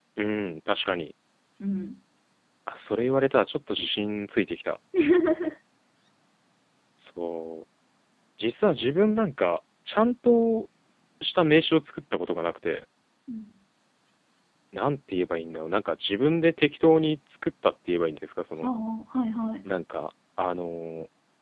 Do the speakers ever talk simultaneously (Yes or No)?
No